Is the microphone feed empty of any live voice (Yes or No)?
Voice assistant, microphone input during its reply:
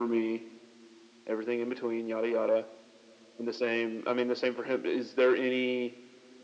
Yes